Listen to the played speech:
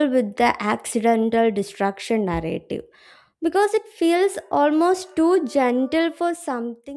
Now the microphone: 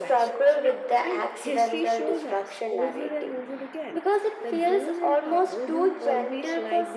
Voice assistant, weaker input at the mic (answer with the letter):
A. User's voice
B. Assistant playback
A